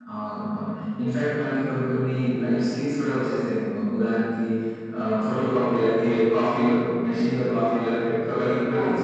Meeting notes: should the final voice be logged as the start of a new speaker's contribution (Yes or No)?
Yes